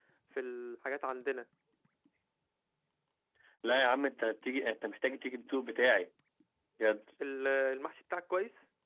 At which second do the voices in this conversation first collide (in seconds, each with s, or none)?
none